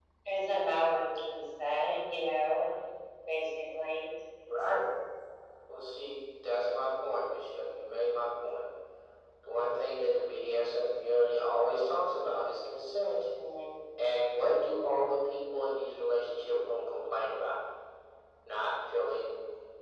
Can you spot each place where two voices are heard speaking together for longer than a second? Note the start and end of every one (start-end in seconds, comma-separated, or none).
none